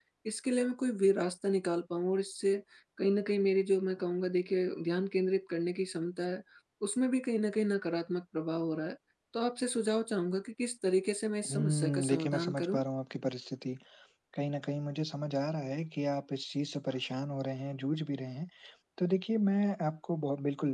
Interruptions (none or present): present